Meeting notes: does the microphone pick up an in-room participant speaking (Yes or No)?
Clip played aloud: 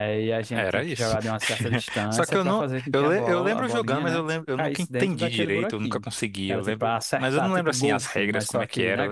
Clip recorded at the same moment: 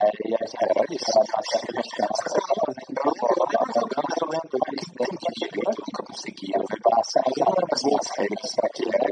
No